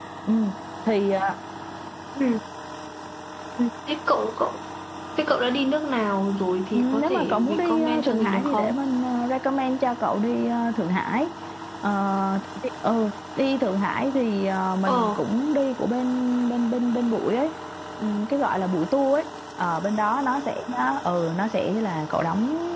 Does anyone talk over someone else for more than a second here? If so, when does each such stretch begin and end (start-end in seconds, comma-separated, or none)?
6.7-8.8